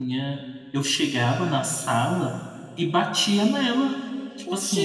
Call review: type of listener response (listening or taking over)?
listening